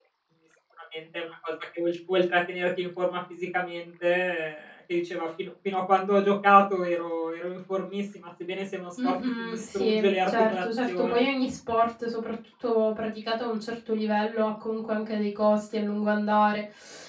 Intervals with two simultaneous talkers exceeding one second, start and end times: 9.0-11.3

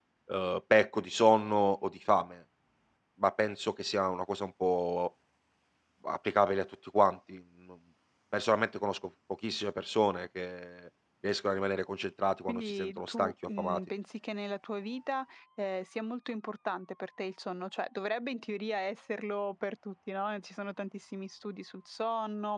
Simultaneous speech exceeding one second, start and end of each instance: 12.5-13.8

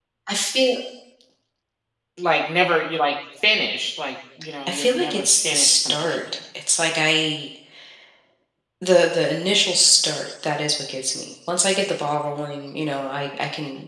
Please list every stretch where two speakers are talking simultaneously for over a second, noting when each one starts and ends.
4.7-6.2

